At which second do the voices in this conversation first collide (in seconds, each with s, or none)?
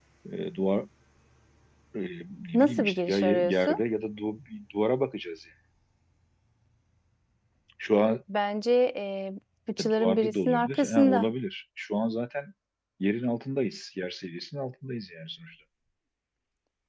2.5 s